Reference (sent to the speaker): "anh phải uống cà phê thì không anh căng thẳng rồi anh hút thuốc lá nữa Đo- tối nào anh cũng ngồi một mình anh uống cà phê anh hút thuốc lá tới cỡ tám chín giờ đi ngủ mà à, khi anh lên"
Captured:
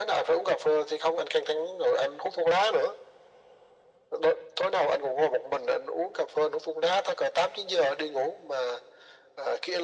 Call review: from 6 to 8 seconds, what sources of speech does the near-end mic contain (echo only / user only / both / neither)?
echo only